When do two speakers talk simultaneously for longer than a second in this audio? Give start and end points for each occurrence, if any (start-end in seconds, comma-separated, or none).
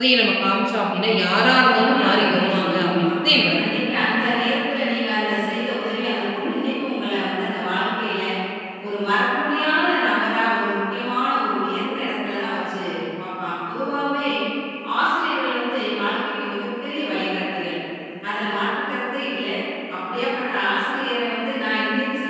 1.7-3.1